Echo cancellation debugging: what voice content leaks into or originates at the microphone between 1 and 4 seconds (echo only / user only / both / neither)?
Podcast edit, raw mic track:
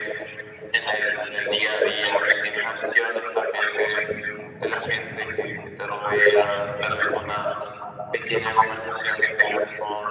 echo only